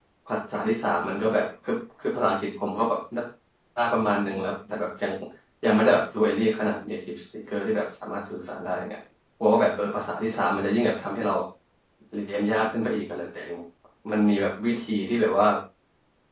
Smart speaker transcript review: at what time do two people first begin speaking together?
none

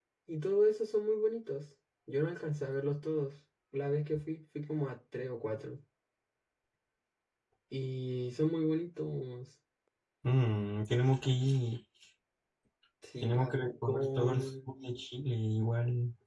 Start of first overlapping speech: 13.2 s

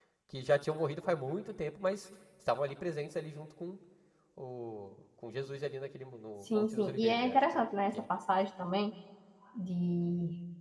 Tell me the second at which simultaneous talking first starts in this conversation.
6.4 s

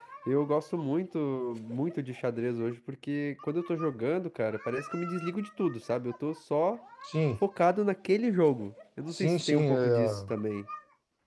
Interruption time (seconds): 9.1 s

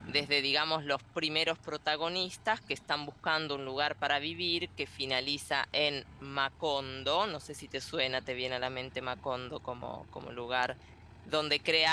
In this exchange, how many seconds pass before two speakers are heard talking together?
none

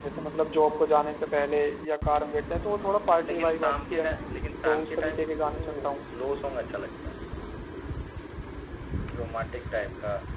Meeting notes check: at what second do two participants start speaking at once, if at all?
2.6 s

